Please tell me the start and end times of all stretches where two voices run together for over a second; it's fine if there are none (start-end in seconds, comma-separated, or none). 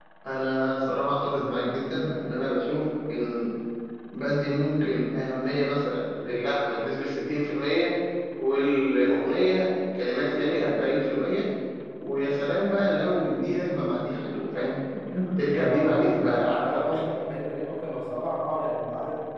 15.5-17.1